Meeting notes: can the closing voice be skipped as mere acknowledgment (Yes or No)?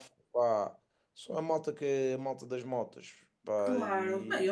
No